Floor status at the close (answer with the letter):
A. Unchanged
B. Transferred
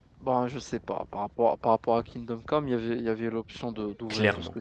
B